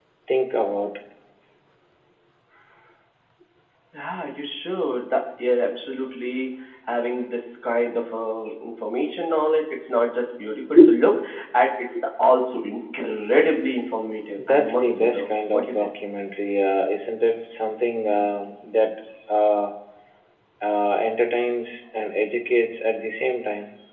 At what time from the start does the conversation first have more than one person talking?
14 s

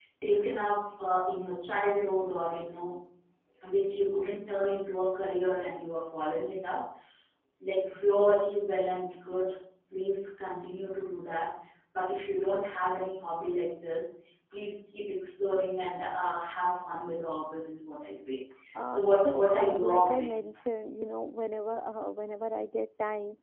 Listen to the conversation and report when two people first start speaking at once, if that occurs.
19 s

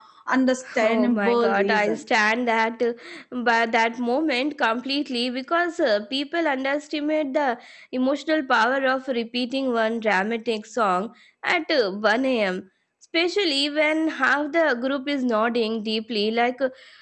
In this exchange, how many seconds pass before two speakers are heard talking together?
1 s

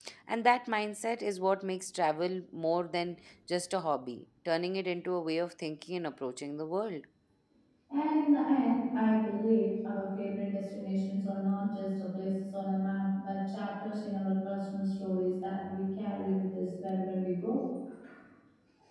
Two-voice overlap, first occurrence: none

